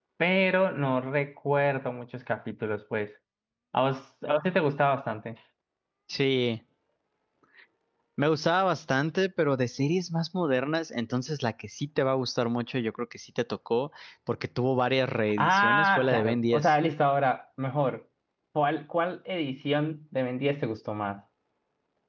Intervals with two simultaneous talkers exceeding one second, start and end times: 15.4-16.8

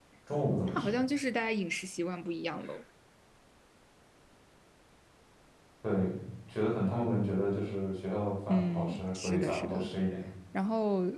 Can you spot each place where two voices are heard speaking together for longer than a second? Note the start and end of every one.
8.5-9.9

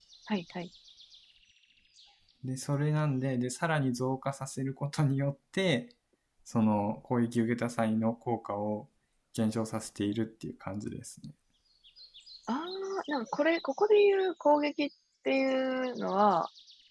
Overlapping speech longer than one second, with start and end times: none

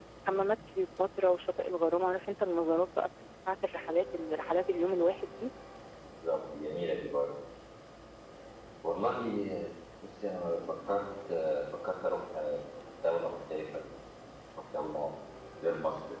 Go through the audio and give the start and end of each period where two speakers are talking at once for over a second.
none

